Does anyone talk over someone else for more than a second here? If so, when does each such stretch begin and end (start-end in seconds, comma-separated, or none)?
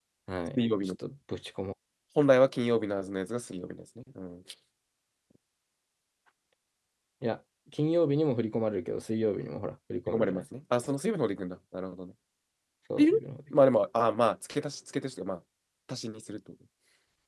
none